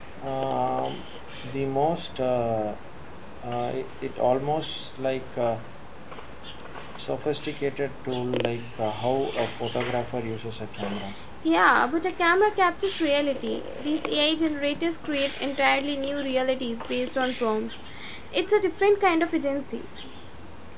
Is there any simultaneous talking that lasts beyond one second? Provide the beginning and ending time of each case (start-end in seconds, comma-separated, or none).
none